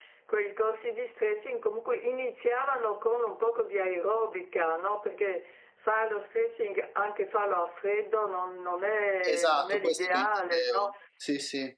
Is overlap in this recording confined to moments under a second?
No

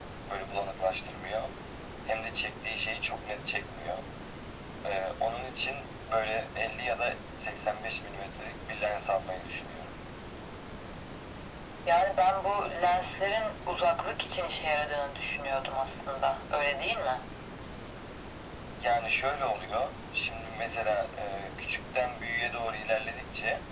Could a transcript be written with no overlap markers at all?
Yes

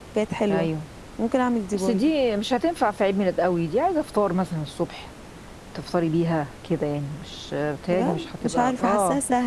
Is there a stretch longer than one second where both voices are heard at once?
Yes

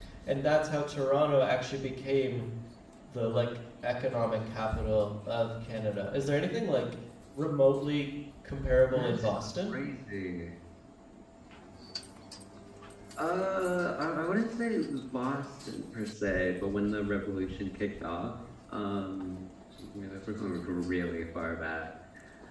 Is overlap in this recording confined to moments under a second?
Yes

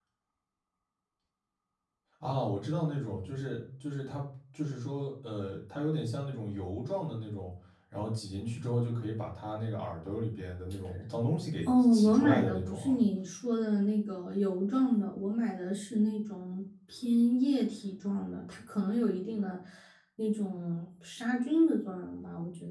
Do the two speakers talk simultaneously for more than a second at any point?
Yes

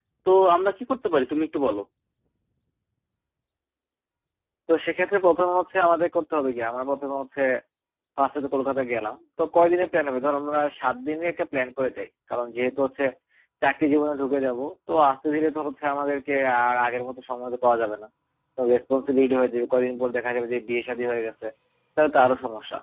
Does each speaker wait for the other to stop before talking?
Yes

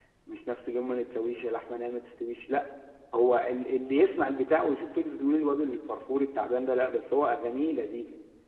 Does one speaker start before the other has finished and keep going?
No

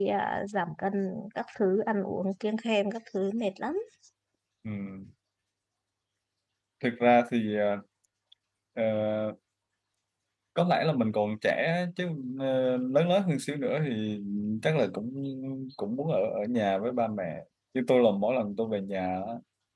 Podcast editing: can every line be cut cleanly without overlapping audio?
Yes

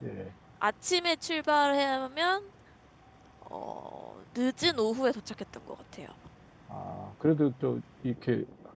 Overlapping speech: No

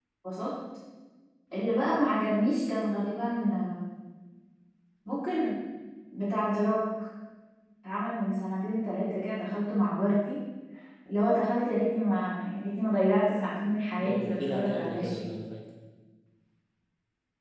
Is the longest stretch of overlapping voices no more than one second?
No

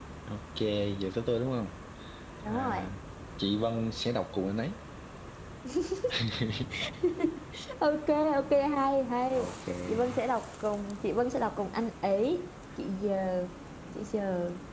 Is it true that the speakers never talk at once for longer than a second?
Yes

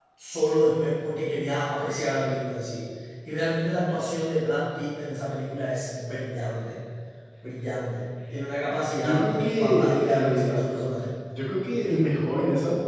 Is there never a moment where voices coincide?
No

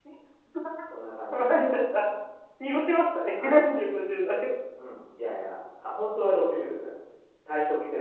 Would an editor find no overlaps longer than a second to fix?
Yes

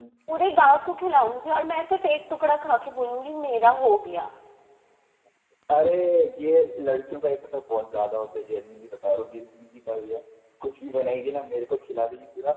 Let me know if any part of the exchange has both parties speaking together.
No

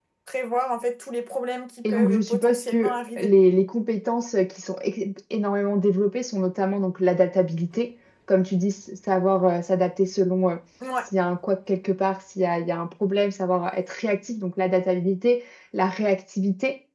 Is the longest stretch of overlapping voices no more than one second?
No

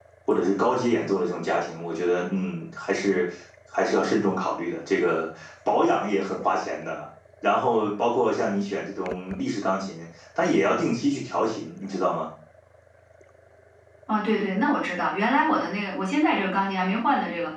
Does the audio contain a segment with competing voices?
No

